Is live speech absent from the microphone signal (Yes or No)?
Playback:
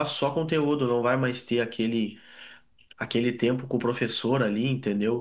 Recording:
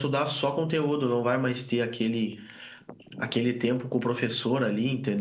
Yes